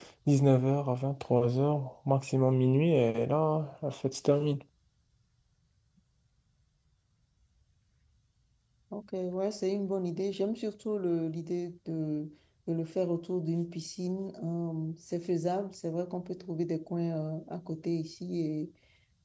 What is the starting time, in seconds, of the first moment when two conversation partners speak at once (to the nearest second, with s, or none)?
none